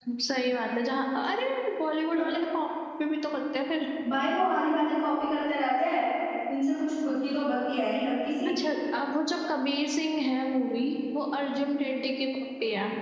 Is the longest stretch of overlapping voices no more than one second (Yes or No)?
Yes